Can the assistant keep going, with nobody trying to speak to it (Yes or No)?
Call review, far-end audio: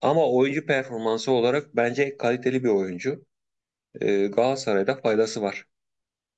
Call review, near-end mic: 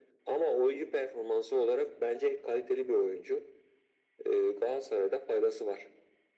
Yes